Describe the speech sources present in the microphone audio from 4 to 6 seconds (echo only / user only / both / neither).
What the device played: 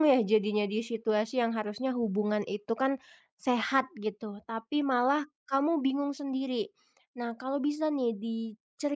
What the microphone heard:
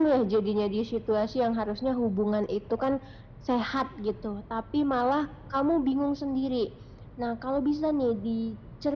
echo only